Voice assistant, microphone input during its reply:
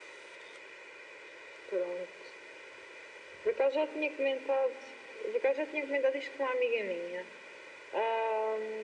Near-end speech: none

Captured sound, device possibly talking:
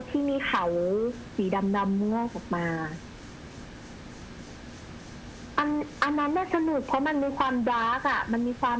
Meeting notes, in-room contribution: none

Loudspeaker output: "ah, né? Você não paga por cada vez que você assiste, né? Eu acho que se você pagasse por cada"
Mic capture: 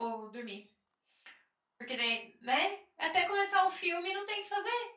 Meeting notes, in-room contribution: present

